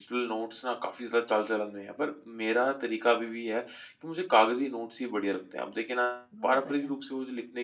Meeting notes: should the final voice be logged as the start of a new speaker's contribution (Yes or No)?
No